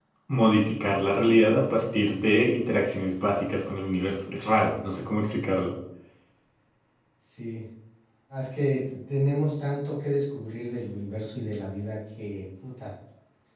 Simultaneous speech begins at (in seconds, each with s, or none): none